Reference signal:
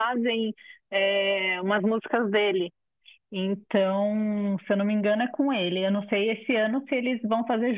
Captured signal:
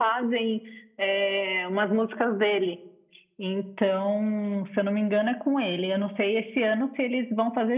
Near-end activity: none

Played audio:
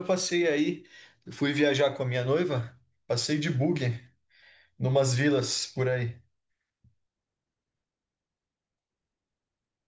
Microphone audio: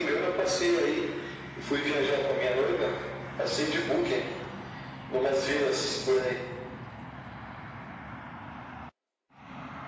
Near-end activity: none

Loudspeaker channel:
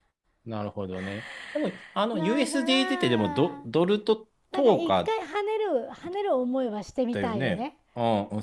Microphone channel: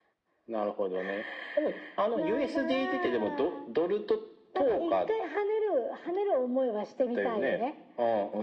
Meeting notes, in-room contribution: none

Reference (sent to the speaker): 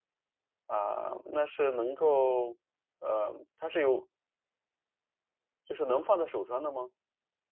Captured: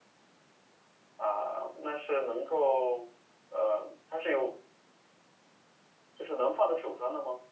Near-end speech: none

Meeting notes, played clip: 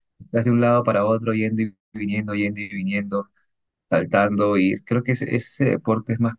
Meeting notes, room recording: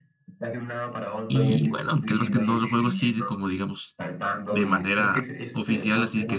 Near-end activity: present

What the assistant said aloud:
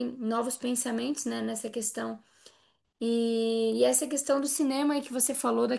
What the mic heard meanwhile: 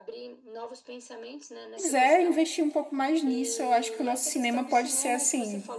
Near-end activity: present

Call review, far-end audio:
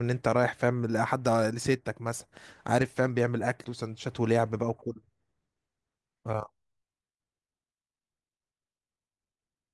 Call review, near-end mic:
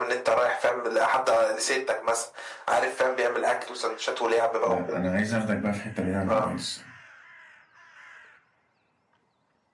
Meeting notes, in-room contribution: present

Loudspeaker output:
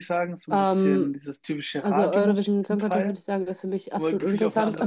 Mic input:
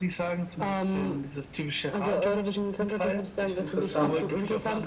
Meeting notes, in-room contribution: present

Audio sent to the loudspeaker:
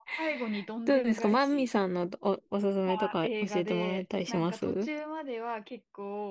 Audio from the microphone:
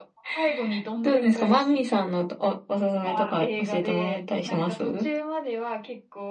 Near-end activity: none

